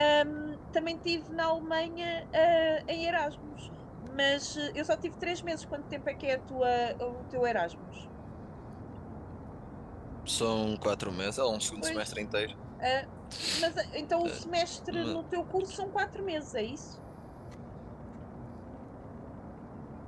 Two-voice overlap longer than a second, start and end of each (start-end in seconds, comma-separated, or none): none